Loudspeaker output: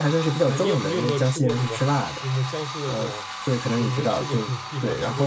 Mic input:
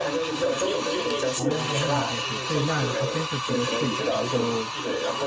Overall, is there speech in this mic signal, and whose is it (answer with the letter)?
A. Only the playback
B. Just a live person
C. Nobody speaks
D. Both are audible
D